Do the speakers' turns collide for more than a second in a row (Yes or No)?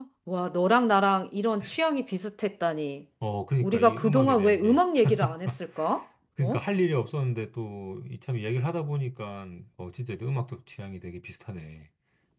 Yes